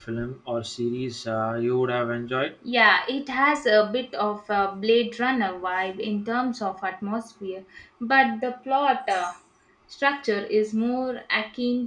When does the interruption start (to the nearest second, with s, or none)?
none